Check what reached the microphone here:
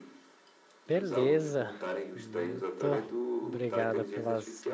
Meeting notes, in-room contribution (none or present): present